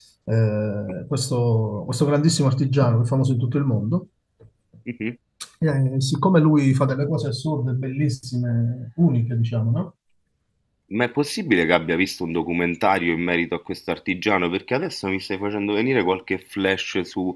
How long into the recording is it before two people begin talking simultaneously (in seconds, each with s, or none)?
none